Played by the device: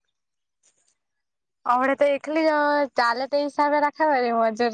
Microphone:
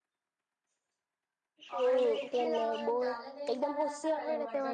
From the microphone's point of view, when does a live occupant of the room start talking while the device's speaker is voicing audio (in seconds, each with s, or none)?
1.7 s